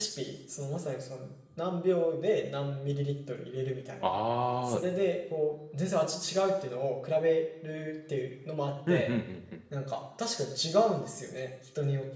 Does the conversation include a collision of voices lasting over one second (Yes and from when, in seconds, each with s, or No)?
No